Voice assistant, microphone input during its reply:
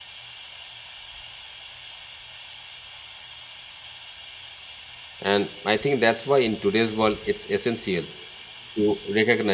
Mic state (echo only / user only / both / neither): user only